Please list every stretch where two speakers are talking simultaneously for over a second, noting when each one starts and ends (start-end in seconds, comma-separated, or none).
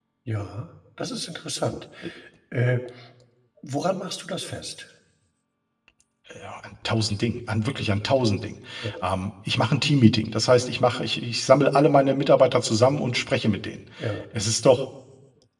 none